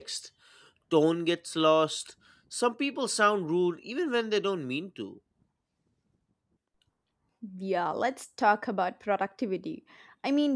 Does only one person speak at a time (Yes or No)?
Yes